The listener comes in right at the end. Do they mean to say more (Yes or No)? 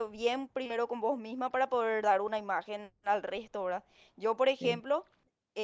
No